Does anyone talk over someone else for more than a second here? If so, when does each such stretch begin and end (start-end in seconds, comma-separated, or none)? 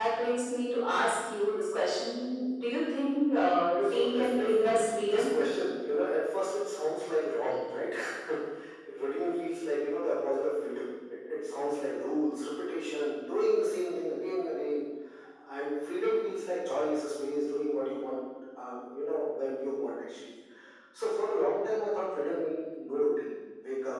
3.8-5.2